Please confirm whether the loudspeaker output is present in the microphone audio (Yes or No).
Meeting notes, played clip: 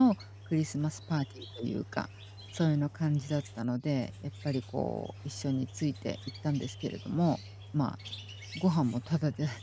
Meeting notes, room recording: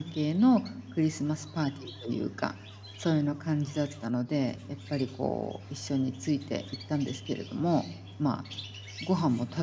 Yes